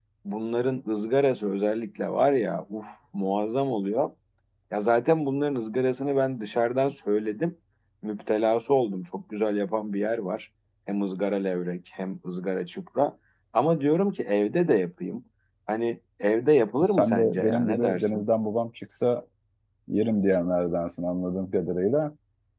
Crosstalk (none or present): present